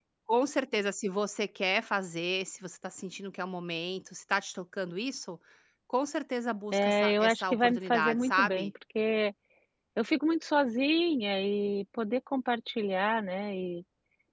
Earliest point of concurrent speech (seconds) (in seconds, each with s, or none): 6.7 s